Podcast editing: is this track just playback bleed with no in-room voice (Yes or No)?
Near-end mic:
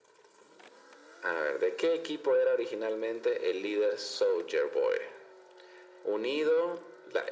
Yes